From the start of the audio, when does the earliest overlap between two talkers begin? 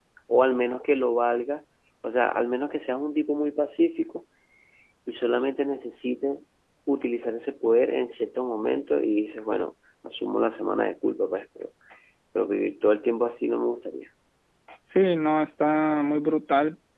none

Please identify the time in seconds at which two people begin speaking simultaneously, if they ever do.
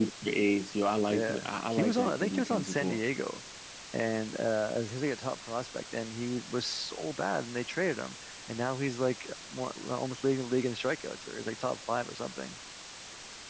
1.1 s

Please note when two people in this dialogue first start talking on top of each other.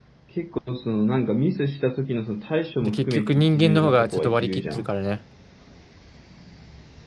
2.8 s

